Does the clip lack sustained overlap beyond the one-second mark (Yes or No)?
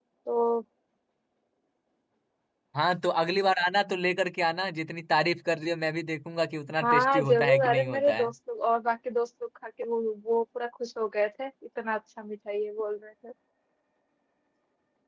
No